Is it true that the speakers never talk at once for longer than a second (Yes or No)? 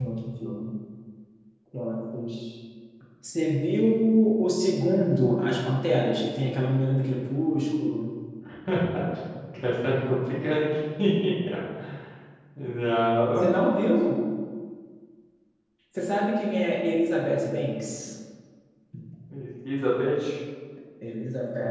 Yes